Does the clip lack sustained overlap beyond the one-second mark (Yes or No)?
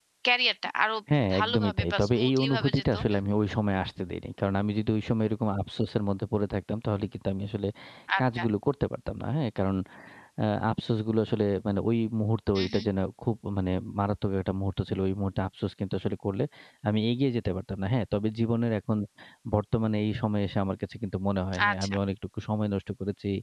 No